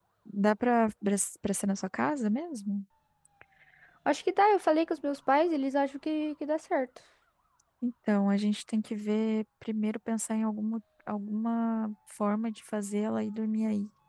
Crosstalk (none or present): none